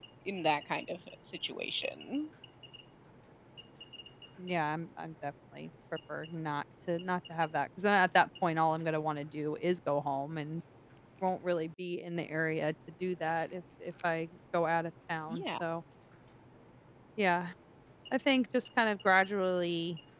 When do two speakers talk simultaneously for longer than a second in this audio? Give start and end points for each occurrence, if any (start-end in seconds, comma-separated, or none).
none